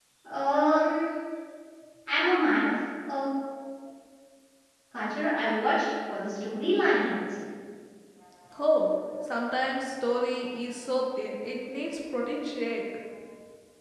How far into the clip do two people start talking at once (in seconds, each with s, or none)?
none